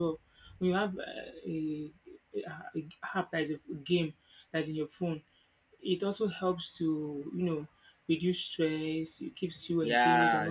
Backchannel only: No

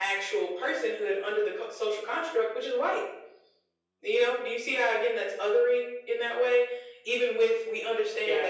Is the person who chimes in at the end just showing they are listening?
Yes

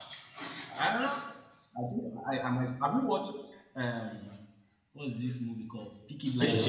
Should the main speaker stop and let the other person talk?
Yes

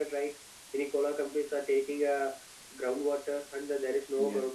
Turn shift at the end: No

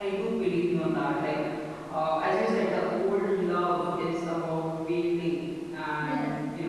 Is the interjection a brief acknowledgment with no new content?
Yes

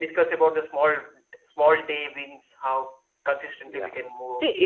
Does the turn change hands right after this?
Yes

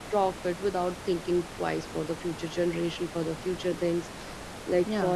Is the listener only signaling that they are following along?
Yes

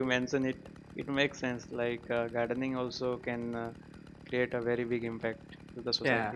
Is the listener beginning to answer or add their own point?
Yes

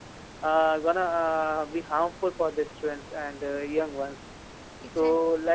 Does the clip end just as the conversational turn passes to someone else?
No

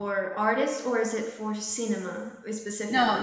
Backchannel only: No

